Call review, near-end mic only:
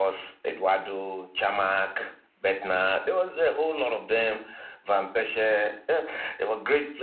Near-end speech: none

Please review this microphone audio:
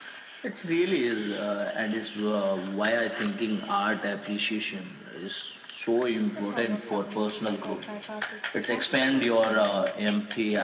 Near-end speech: present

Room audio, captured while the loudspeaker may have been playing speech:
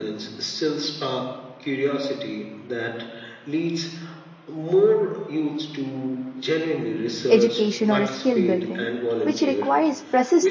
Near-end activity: present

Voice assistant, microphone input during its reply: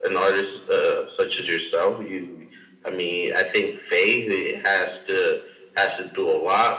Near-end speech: none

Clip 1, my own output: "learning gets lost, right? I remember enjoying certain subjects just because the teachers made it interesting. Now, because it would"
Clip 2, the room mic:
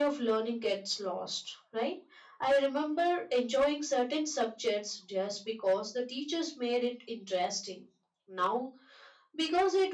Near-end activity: none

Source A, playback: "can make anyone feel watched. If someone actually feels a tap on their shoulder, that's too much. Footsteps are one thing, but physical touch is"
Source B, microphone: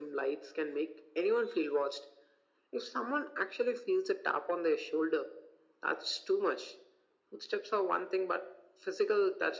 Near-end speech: none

